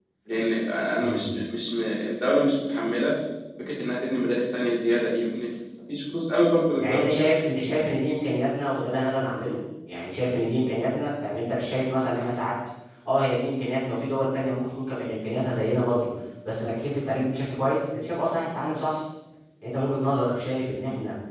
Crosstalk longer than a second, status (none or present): none